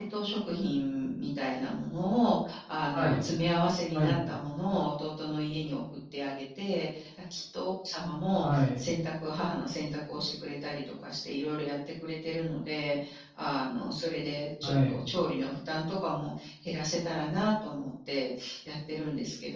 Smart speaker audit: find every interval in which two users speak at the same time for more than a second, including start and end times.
none

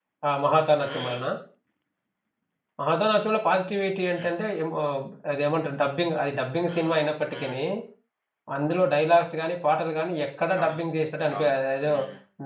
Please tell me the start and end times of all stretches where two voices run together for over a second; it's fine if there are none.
none

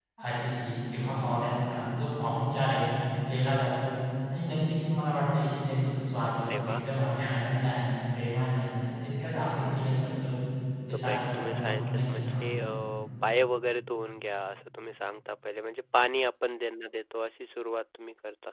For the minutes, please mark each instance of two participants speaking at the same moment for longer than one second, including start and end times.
10.9-12.4

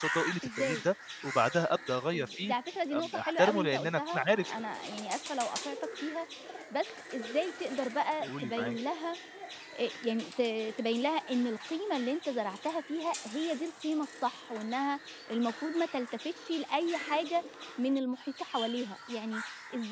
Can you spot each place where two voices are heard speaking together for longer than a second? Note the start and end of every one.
2.9-4.6

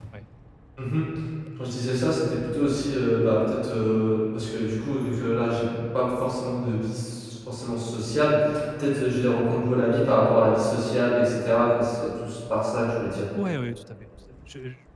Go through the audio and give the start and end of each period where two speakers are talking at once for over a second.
none

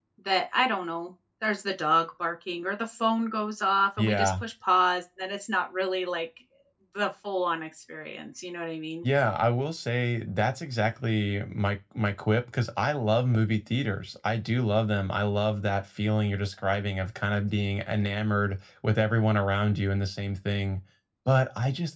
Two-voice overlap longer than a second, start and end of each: none

